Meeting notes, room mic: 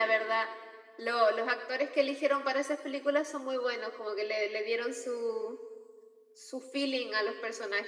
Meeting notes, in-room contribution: none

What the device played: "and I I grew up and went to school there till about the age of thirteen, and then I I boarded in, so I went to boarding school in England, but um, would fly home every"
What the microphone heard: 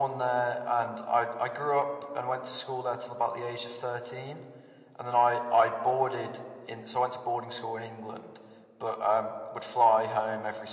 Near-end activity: none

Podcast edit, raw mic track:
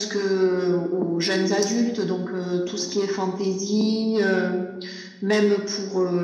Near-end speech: none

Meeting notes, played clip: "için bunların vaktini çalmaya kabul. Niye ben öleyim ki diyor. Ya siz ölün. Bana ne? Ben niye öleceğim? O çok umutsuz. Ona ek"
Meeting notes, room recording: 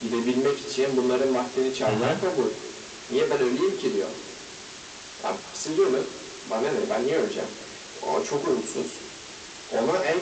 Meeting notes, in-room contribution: present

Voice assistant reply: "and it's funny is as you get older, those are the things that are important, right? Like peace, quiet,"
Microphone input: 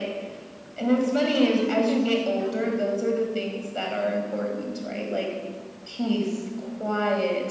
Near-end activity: present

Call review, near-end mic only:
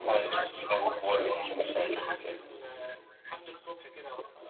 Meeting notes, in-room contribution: none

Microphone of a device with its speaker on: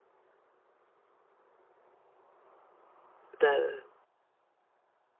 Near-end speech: present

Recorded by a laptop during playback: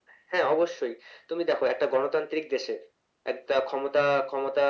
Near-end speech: none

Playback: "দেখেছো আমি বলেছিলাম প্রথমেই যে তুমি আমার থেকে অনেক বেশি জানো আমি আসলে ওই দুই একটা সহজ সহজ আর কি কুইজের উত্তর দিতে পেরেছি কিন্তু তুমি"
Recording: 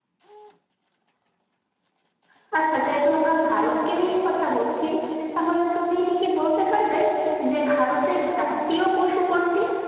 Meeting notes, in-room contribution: present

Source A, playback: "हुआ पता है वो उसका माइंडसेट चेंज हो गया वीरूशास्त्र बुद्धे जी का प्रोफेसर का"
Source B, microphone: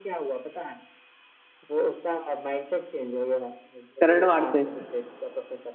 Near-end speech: present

